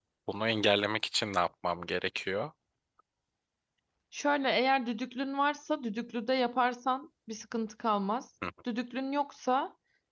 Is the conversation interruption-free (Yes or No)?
Yes